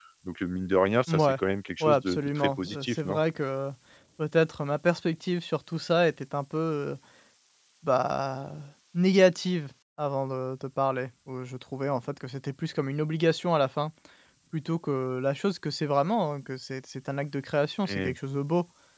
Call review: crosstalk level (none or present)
present